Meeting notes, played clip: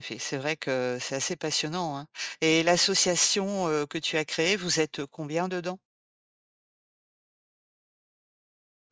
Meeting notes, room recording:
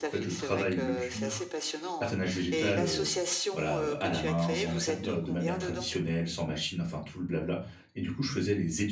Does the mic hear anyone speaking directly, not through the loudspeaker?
Yes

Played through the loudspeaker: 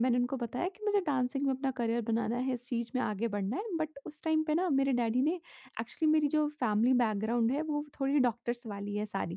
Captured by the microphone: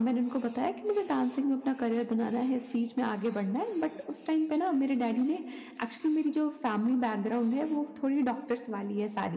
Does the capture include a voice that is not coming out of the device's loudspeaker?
No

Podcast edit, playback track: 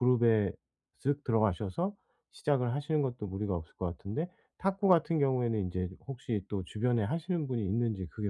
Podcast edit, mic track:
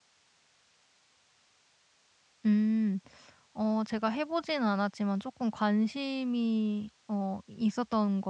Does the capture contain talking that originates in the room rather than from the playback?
Yes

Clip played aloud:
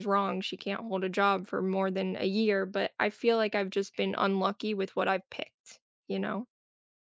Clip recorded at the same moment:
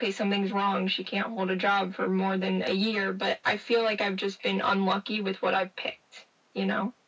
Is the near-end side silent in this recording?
Yes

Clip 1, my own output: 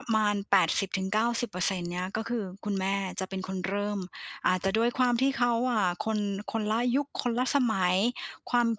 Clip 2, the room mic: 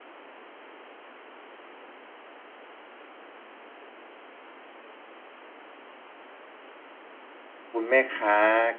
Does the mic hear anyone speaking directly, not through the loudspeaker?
Yes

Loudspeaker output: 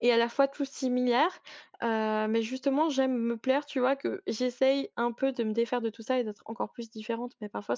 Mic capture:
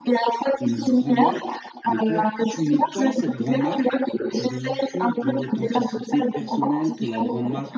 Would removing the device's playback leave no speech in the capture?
No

